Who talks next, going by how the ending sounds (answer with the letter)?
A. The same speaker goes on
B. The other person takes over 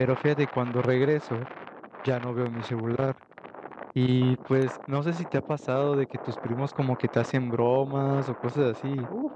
B